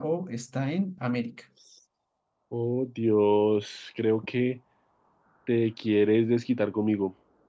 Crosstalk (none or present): none